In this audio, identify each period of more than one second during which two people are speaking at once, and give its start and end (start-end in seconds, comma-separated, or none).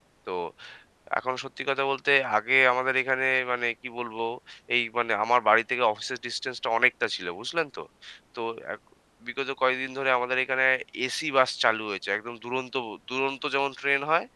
none